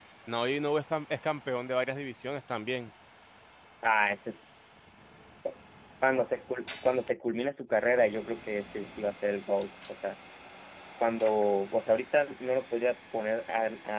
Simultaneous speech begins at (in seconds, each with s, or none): none